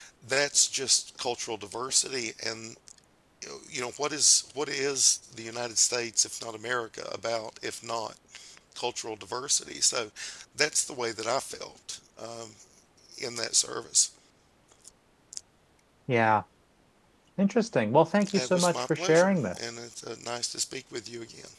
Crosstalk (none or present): present